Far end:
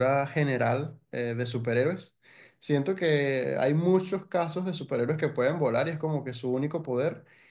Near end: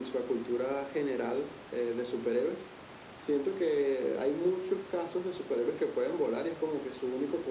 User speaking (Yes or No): No